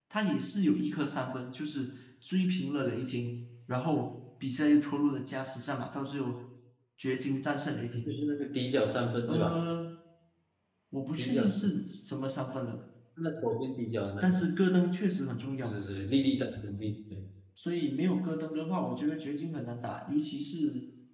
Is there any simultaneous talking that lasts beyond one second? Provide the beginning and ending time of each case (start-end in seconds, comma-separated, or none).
none